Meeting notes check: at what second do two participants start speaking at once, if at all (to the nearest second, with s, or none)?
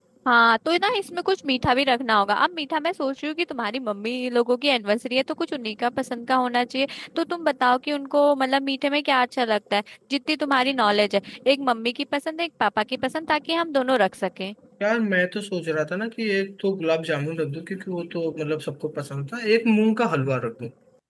none